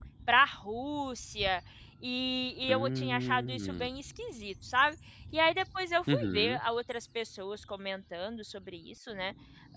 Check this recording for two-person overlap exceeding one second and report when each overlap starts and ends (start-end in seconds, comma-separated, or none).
2.7-3.9